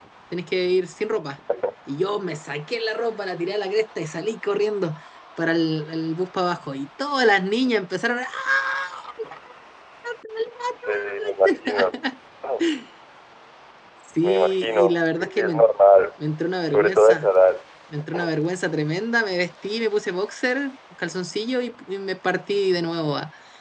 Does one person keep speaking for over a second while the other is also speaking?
Yes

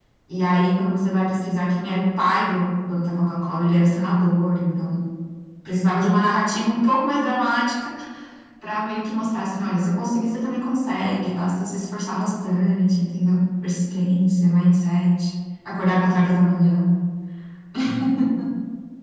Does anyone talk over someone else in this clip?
No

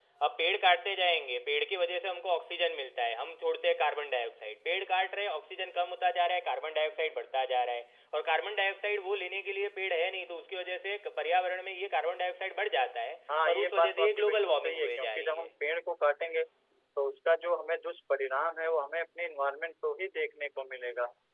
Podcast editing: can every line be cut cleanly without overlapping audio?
No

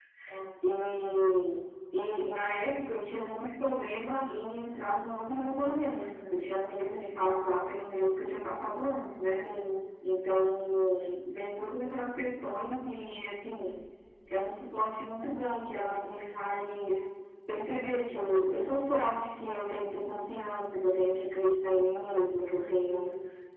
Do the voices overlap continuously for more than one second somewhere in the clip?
No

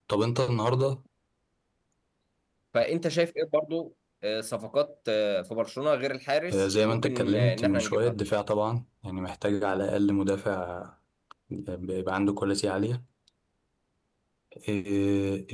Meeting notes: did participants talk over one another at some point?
Yes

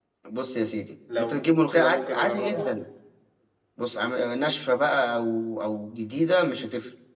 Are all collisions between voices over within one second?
No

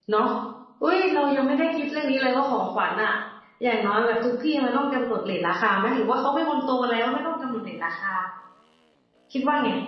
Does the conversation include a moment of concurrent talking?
No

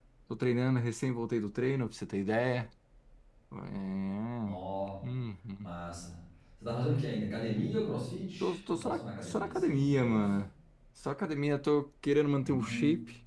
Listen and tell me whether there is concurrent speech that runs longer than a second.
Yes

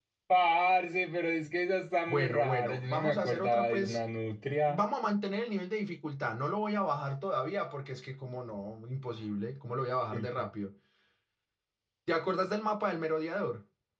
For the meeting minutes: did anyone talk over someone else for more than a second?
Yes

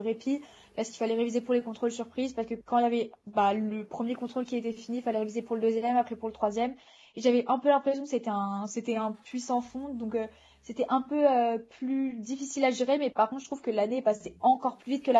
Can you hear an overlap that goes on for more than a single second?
No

